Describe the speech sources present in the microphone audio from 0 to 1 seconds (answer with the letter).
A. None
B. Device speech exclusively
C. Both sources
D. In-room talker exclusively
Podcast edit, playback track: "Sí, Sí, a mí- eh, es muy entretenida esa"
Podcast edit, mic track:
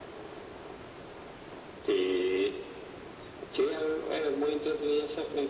A